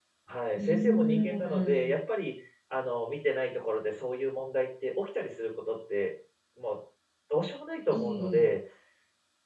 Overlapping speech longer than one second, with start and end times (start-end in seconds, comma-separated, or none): 0.6-1.9